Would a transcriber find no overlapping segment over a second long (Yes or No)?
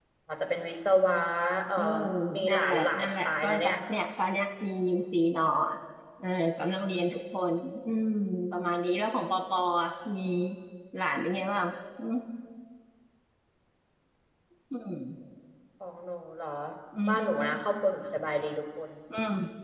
No